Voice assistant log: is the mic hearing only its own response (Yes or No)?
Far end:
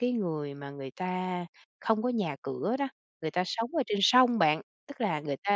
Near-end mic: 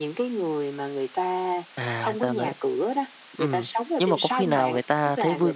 No